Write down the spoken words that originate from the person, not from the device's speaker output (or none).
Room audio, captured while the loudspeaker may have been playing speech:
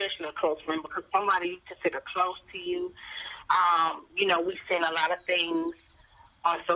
none